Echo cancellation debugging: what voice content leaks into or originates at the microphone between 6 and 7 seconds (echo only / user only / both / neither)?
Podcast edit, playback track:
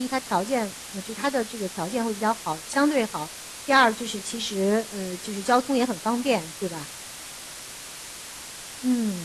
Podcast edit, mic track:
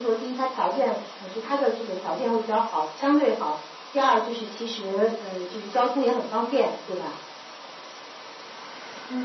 echo only